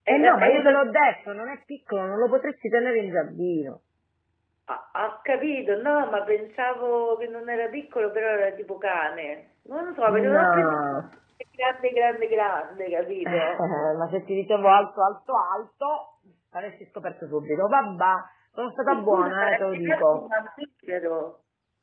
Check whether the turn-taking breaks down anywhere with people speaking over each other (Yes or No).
Yes